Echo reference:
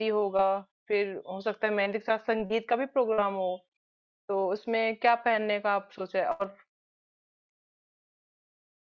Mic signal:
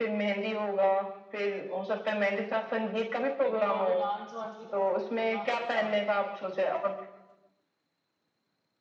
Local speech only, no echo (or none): क्योंकि वहां पे डांस वांस भी थोड़ा बहुत करना पड़ेगा